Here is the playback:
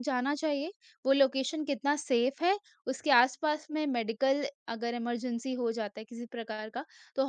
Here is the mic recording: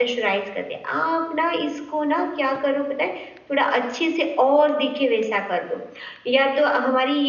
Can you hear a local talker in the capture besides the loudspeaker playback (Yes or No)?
Yes